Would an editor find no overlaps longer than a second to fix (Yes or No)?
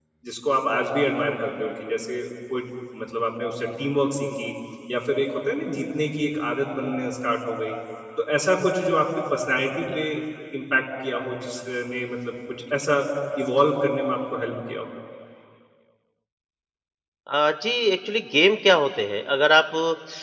Yes